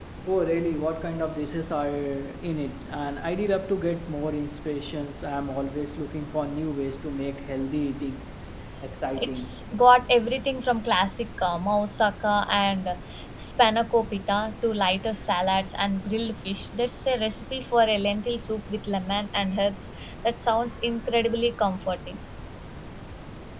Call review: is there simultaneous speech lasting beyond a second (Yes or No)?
No